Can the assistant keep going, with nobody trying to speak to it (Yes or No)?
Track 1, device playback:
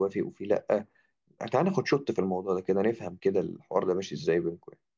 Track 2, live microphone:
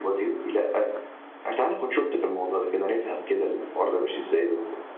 Yes